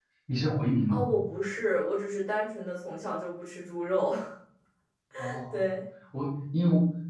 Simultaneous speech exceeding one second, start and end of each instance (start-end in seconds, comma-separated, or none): none